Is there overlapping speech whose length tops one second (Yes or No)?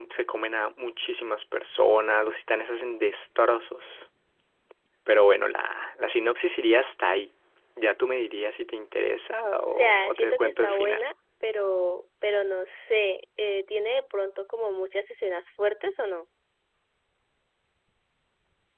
Yes